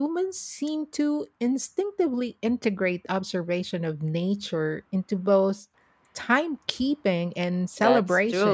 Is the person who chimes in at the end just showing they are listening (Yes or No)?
No